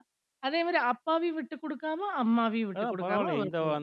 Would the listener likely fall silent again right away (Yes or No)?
No